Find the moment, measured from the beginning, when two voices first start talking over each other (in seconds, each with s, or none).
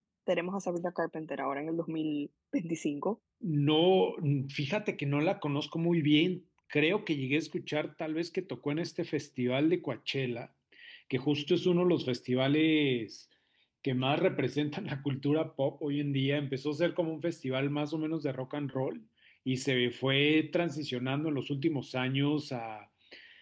none